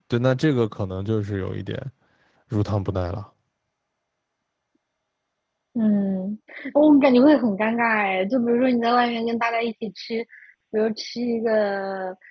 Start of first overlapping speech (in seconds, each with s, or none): none